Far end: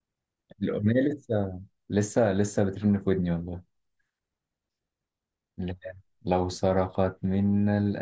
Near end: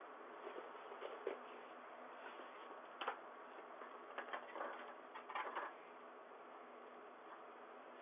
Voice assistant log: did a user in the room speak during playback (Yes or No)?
No